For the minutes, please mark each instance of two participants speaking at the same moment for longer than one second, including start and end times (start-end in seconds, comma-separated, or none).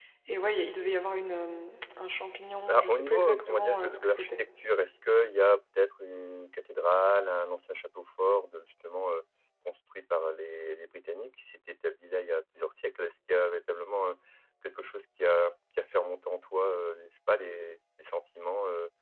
2.7-4.3